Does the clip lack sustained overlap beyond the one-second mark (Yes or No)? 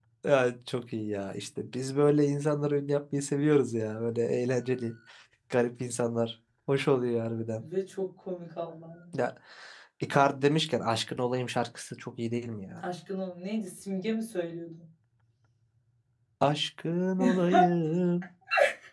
Yes